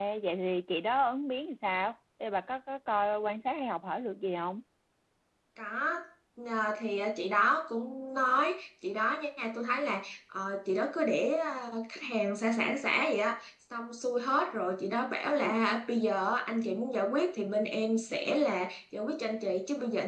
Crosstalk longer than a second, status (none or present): none